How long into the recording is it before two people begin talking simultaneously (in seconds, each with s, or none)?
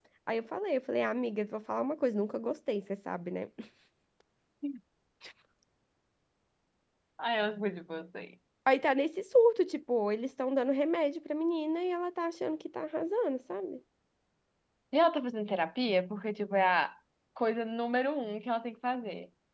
none